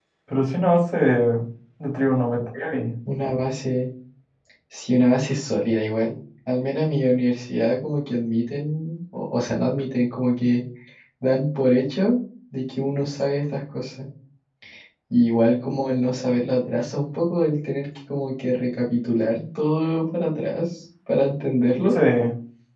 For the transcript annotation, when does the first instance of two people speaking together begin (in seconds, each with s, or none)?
none